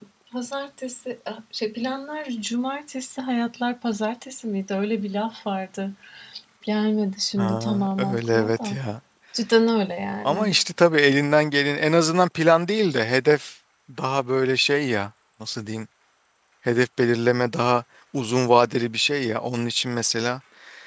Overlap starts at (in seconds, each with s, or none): 7.4 s